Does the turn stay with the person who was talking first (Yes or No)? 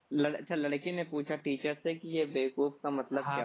No